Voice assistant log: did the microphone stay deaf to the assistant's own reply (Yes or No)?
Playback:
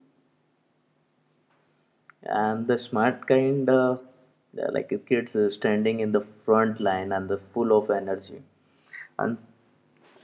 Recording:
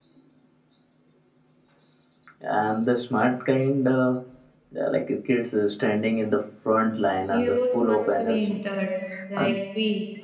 No